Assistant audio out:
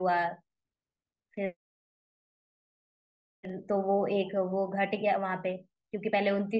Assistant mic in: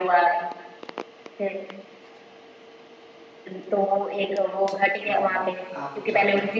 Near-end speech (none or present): present